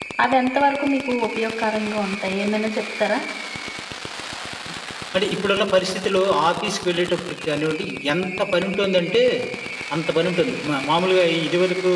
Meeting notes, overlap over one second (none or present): none